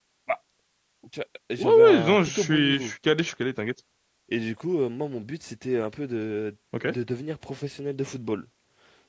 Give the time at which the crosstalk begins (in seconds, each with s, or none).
1.6 s